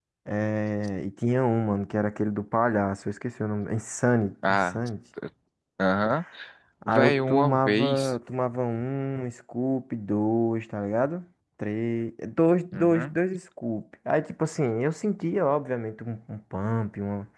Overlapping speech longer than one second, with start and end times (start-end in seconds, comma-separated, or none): 6.9-8.1